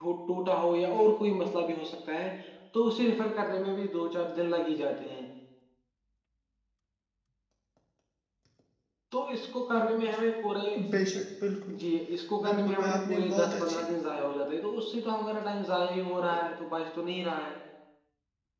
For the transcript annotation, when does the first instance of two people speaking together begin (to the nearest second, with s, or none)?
12 s